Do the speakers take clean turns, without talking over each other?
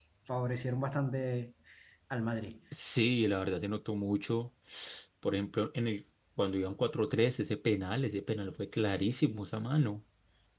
Yes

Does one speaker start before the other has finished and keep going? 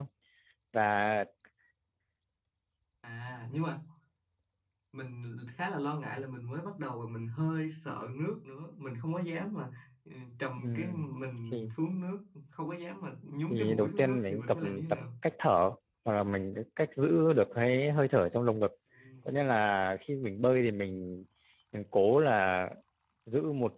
Yes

